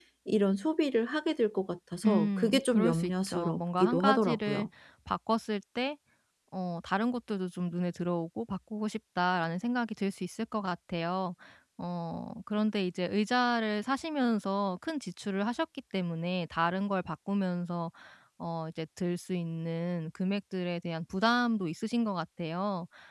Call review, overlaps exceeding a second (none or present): present